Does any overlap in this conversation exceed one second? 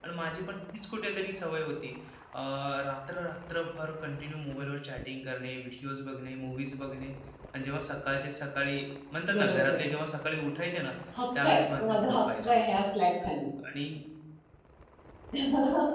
Yes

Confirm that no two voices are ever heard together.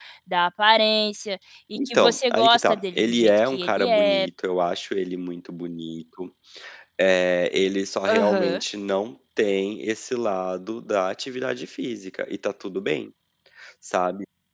No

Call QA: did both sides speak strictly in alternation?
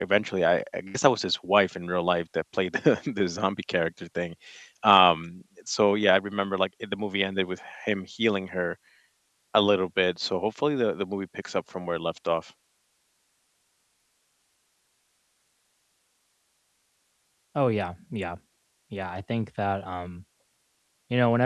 Yes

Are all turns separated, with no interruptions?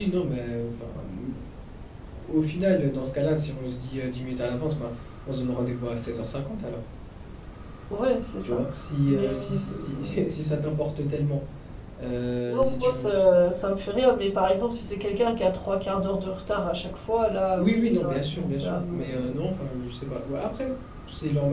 No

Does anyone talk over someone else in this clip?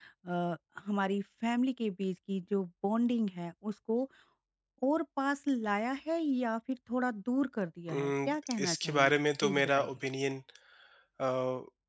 Yes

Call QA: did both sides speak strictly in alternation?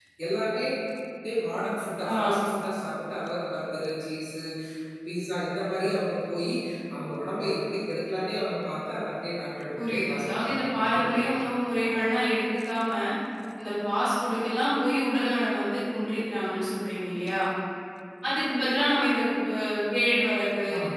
No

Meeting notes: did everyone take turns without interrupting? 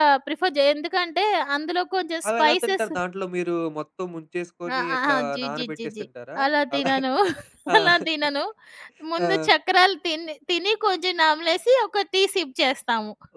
No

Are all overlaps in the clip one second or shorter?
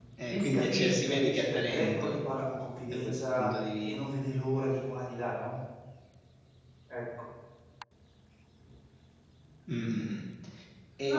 No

